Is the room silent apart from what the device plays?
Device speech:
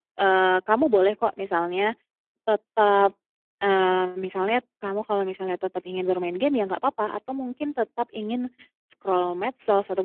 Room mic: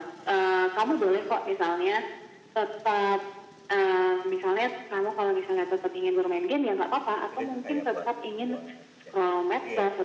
No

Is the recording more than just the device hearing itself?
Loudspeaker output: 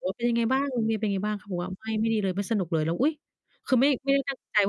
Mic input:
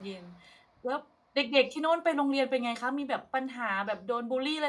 Yes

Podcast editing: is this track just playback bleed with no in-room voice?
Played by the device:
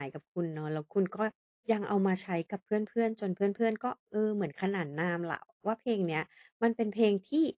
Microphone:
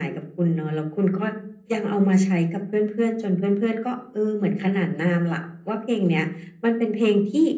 Yes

